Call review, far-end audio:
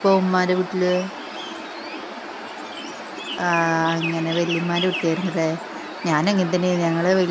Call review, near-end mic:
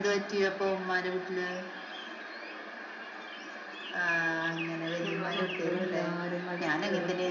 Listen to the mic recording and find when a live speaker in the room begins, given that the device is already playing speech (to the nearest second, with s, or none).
5 s